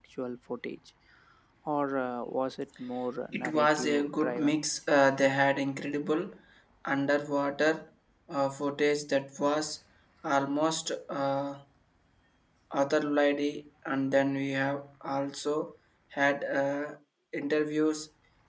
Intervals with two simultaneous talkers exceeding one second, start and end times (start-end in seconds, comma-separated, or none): 3.3-4.6